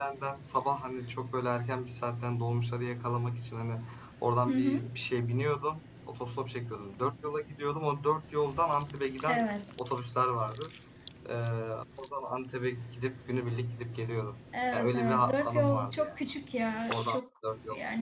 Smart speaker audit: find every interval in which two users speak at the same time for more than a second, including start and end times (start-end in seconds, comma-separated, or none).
14.7-16.2